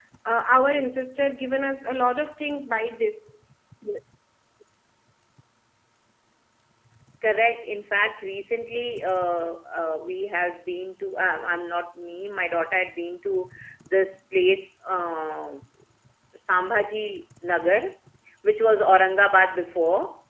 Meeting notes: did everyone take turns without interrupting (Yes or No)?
Yes